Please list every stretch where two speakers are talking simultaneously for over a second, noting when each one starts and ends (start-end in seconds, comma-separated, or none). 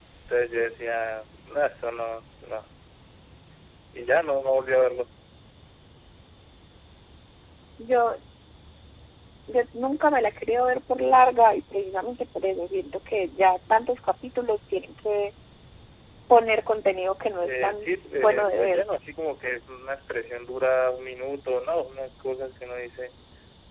17.4-18.8